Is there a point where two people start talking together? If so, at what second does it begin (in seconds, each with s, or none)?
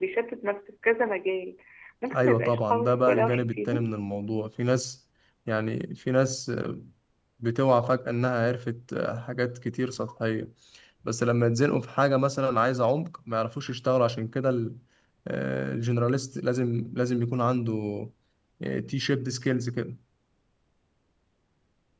2.2 s